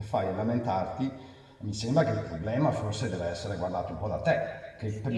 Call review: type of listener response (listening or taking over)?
taking over